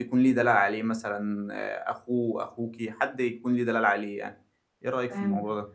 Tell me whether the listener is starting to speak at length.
Yes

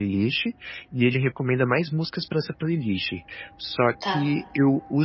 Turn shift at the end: No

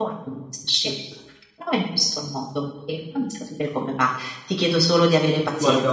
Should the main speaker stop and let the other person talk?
No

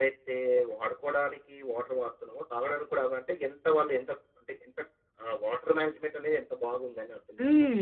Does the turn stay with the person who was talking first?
No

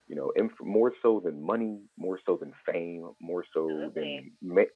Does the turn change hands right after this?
No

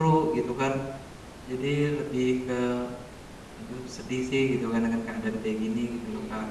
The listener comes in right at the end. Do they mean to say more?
Yes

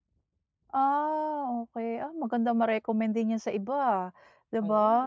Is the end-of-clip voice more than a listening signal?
No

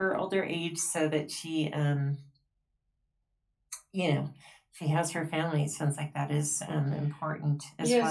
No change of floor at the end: No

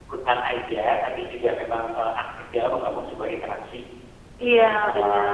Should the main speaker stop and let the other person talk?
Yes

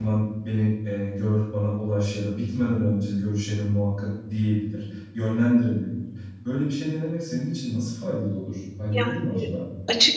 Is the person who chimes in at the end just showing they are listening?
No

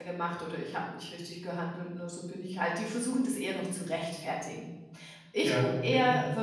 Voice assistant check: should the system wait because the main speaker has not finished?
Yes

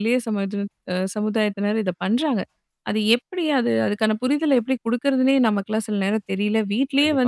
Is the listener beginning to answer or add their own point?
Yes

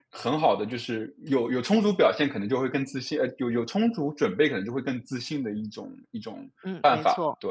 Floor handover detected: Yes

